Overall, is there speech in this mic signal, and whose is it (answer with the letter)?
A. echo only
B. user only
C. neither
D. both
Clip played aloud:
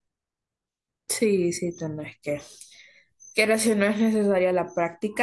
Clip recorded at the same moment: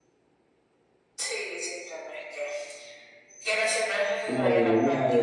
D